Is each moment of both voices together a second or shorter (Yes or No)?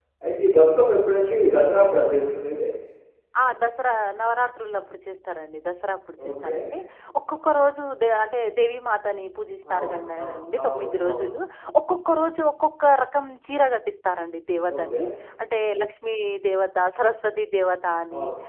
No